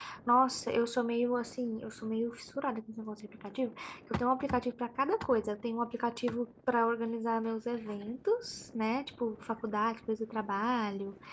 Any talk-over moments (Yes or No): No